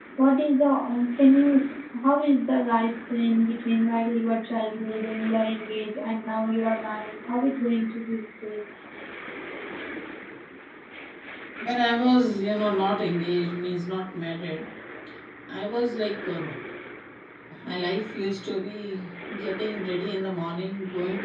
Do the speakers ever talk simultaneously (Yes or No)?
No